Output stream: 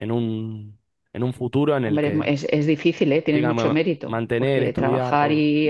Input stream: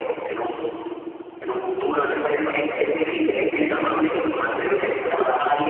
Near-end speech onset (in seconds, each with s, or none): none